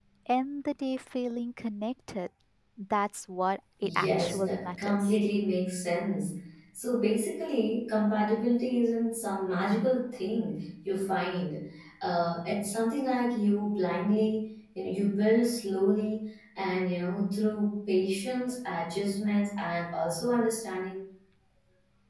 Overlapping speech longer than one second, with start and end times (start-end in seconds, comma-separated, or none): 3.8-5.2